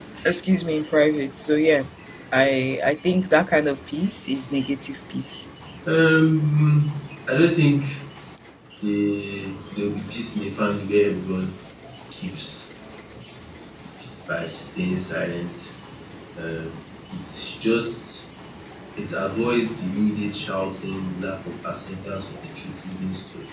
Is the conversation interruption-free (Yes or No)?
Yes